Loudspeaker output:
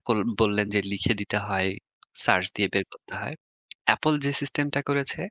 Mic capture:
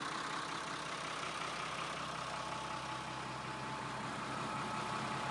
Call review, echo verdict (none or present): none